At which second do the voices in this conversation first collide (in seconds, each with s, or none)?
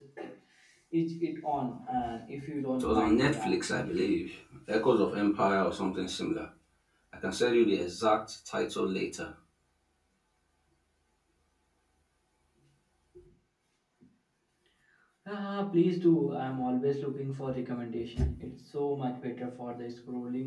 2.8 s